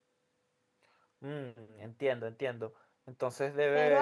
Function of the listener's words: taking over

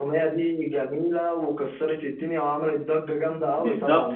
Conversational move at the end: taking over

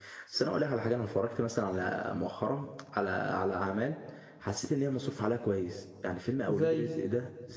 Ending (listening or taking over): listening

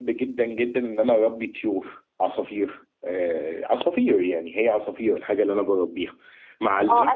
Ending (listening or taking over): taking over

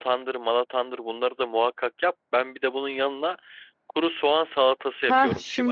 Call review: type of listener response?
taking over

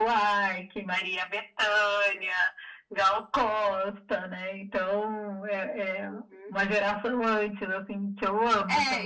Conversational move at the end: taking over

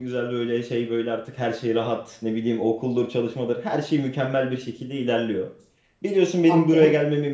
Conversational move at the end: listening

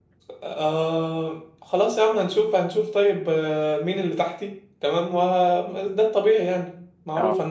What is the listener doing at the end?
listening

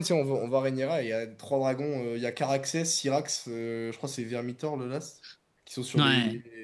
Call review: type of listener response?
listening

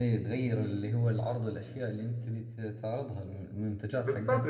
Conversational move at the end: taking over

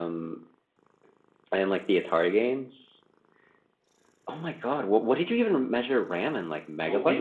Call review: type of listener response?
taking over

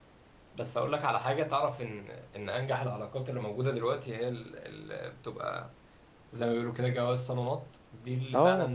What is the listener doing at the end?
listening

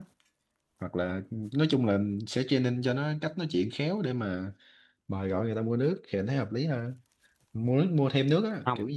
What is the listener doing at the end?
listening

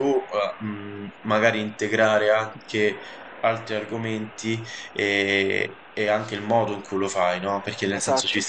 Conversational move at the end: listening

